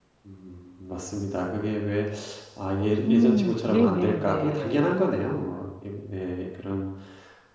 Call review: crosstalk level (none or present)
present